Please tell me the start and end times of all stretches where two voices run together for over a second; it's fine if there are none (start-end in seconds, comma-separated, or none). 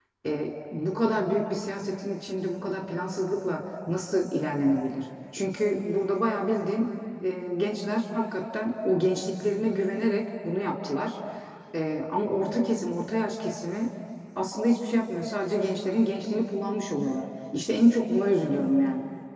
none